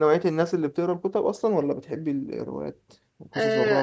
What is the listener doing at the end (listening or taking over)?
taking over